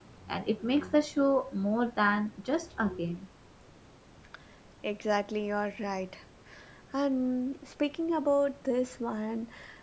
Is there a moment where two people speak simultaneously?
No

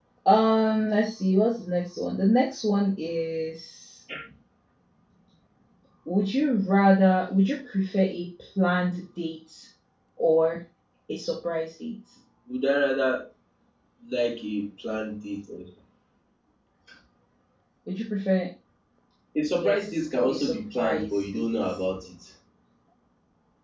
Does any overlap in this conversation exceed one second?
Yes, from 19.5 s

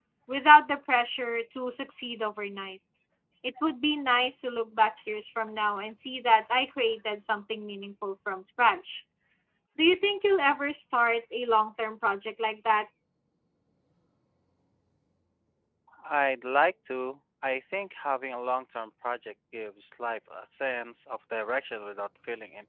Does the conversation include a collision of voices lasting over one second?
No

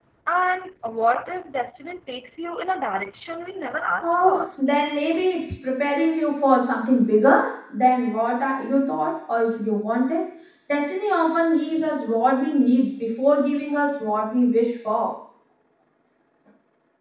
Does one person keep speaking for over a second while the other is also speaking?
No

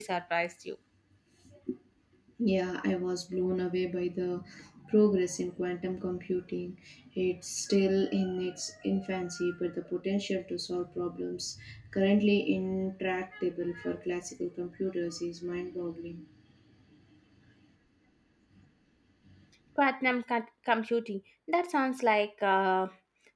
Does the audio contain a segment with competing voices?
No

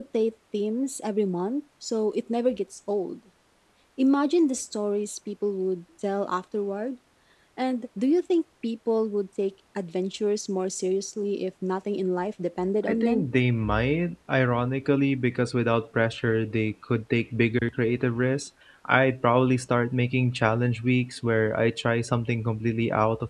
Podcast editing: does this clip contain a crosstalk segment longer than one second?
No

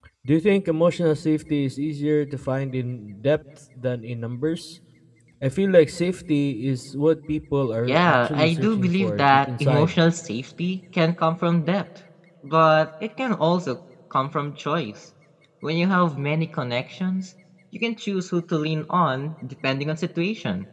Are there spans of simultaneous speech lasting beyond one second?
Yes, from 7.9 s

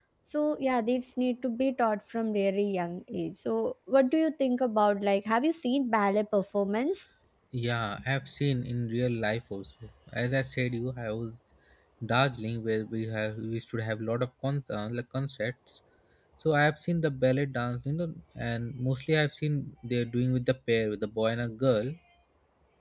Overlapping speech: No

